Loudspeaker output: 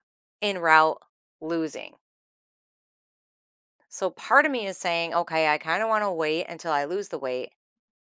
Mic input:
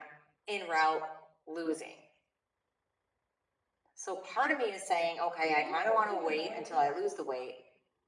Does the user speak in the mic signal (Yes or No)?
Yes